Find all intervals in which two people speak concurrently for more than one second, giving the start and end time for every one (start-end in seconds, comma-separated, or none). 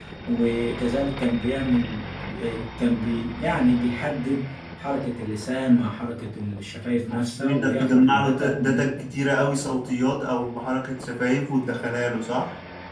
7.1-8.9